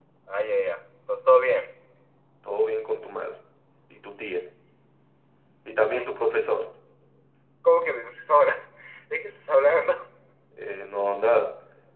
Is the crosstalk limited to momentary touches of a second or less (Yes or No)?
Yes